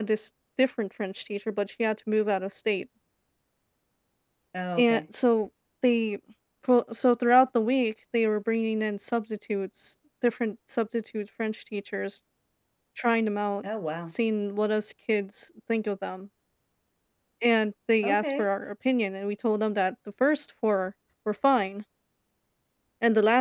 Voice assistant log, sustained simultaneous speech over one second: none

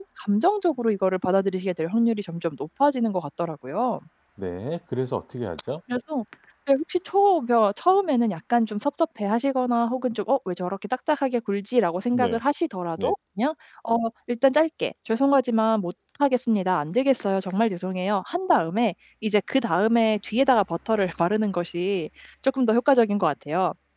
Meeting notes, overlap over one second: none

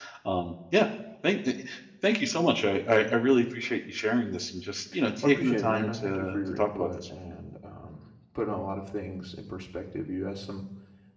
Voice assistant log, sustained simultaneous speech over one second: present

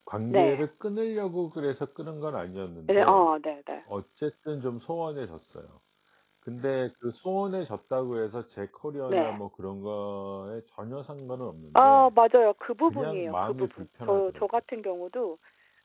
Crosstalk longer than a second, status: present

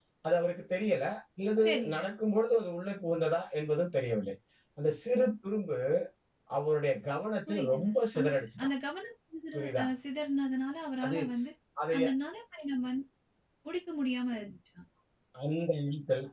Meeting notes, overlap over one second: present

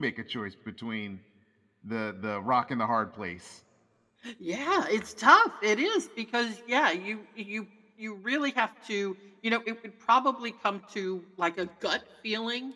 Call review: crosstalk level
none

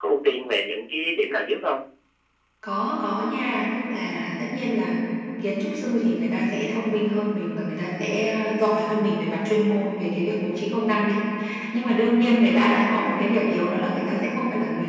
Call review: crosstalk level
none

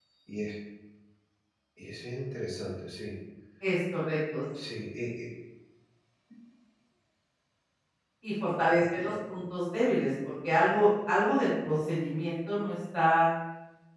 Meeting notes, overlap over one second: none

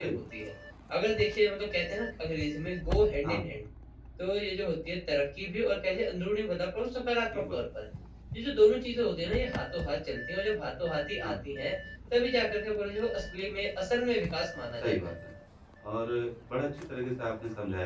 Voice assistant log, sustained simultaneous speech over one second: none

